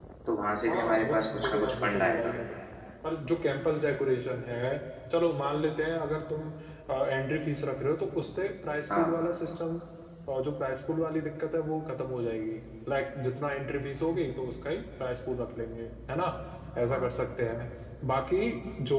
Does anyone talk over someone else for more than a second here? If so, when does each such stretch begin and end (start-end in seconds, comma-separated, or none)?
0.7-2.3